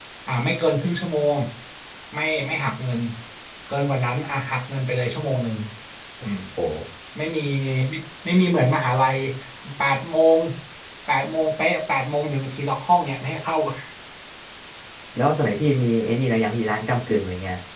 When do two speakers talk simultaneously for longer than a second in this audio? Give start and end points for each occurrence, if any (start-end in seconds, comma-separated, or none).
none